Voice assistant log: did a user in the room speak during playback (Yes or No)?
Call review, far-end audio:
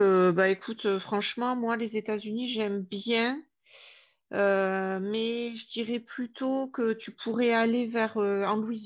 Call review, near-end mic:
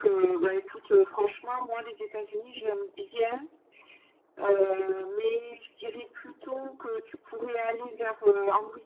No